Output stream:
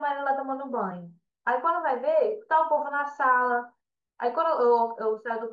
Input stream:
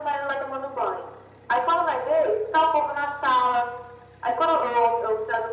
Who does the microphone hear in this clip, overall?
echo only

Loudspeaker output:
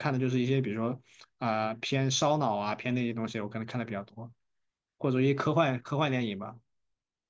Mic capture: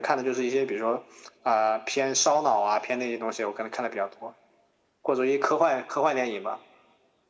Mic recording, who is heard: echo only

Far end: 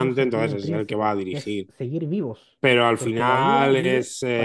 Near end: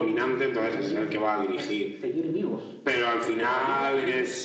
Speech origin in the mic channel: echo only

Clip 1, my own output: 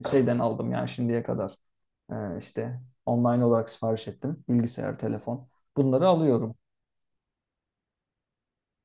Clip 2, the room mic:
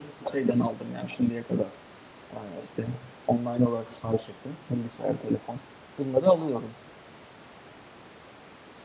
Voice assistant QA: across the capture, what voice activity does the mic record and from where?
echo only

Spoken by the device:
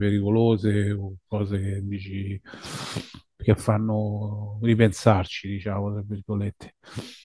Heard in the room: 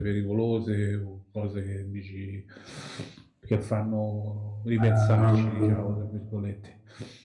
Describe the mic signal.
both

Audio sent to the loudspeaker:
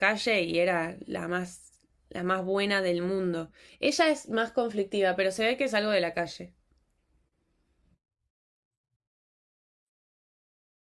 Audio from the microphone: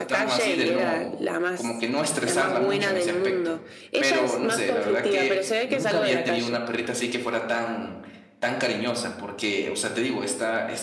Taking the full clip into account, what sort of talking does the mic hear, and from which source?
both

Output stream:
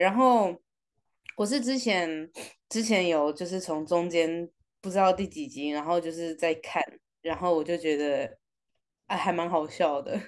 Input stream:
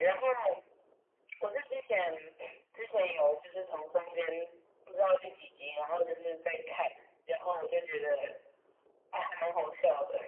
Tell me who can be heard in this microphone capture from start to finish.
echo only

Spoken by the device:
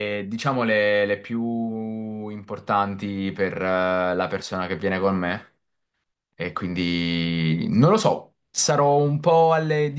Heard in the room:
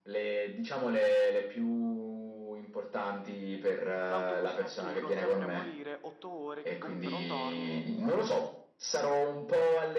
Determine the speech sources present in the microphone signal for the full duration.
both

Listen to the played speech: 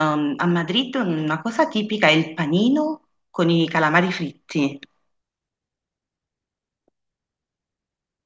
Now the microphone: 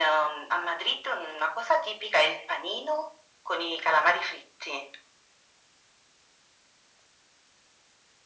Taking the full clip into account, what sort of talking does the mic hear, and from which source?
echo only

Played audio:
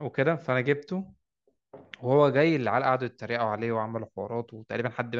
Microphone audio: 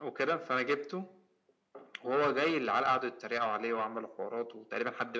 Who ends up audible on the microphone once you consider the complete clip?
echo only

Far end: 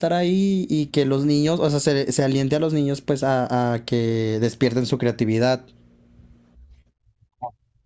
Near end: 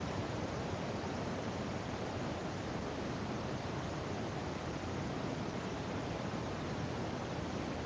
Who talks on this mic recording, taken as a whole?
neither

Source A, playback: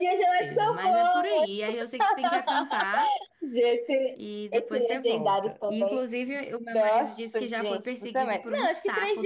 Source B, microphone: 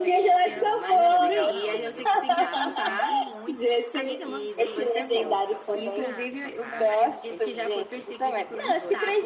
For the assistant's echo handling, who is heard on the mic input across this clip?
both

